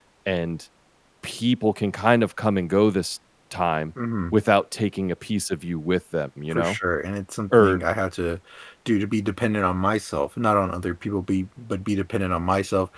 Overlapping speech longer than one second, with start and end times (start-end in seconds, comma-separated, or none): none